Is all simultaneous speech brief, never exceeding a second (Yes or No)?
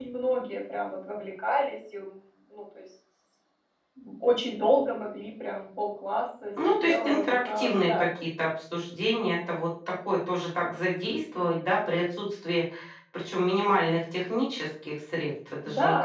No